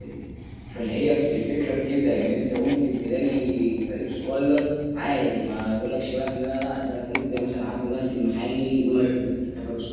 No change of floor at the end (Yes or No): Yes